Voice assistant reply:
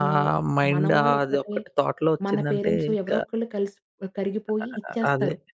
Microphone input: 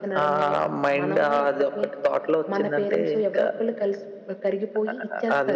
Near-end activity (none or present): none